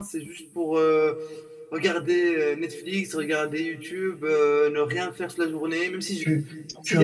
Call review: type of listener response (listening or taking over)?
taking over